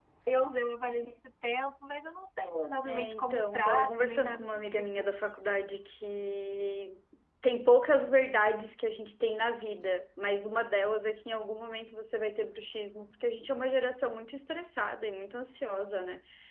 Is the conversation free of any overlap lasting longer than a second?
No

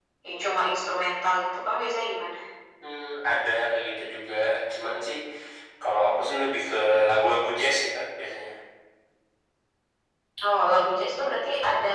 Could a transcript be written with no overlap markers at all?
Yes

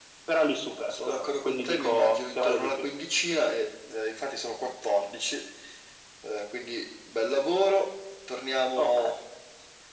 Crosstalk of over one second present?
Yes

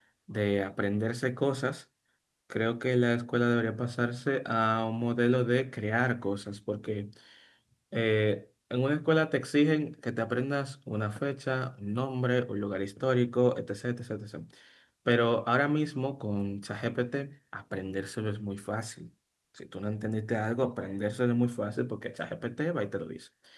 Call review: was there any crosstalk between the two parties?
No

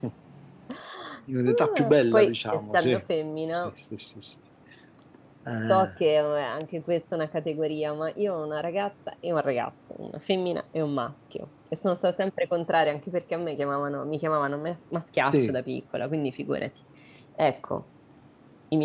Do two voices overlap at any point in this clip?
Yes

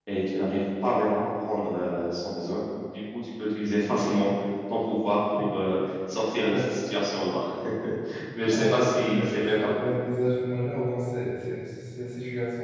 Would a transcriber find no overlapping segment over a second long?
No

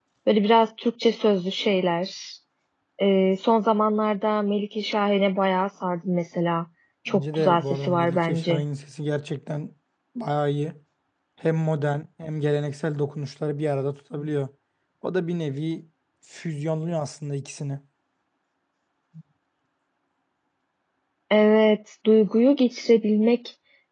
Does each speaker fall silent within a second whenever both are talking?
No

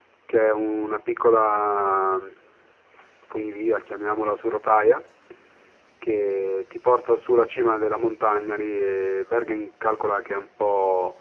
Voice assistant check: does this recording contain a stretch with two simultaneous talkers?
No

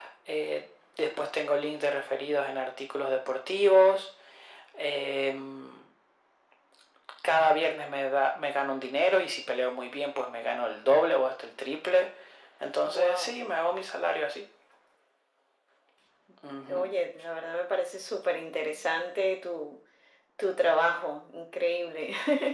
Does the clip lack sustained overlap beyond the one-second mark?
Yes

